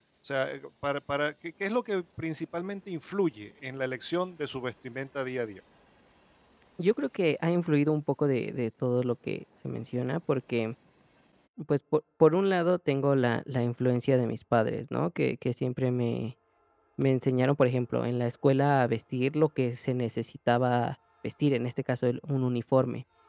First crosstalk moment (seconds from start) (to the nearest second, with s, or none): none